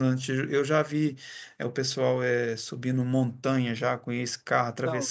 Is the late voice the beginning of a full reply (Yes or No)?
No